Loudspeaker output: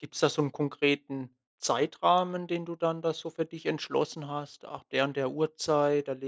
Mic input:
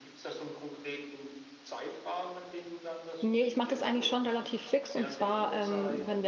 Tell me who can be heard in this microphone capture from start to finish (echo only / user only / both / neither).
both